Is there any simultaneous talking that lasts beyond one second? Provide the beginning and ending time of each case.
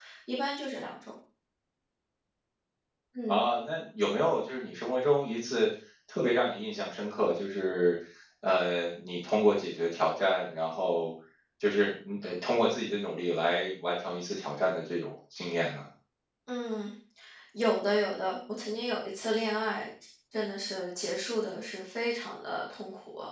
none

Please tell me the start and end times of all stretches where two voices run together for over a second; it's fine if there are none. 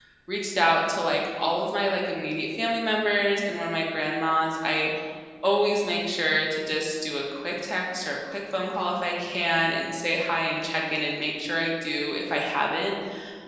none

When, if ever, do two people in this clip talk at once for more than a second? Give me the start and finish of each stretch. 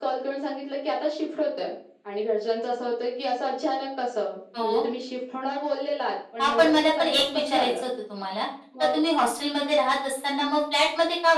6.4-7.8

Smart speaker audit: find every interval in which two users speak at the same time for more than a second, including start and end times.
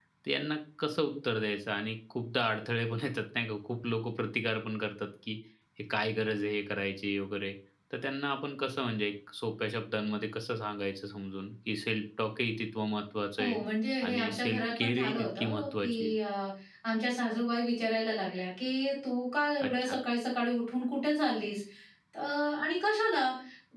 14.1-16.1

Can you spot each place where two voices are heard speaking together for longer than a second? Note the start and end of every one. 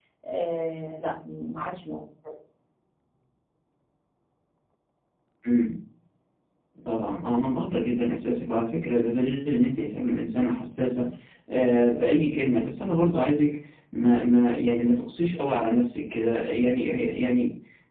none

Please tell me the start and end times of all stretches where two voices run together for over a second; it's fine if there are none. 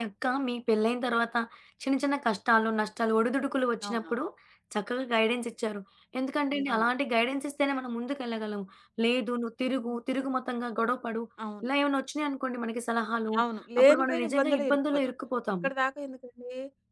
13.8-15.1

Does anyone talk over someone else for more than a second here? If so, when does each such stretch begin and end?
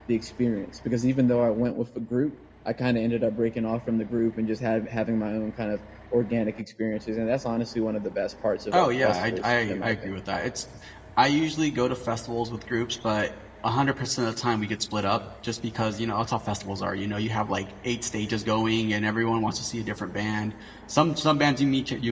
8.7-9.9

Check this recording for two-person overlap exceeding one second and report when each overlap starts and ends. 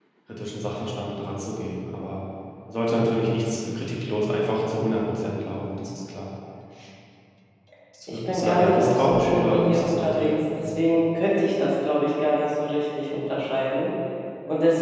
8.1-10.3

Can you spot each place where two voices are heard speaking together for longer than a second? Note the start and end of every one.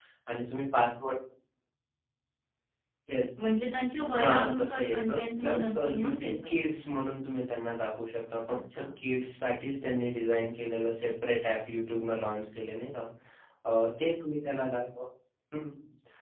4.2-6.5

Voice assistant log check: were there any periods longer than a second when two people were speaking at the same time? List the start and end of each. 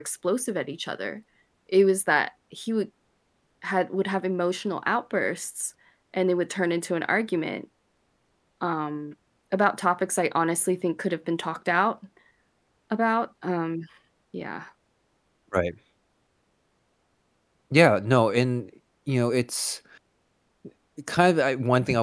none

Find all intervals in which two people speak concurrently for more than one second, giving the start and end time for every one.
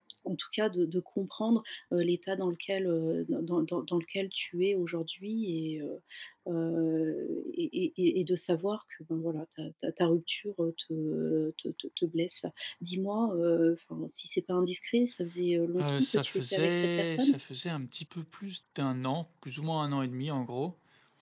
15.8-17.4

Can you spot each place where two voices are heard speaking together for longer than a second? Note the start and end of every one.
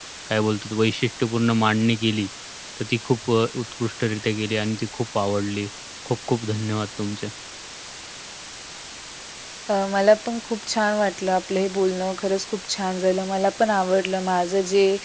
none

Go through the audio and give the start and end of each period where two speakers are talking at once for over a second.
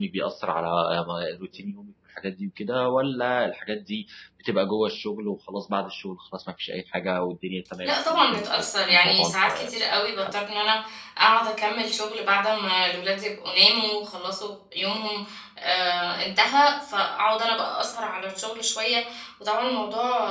7.8-9.5

